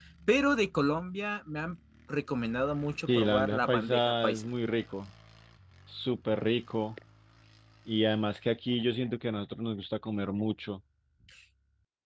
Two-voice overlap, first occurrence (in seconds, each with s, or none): 3.1 s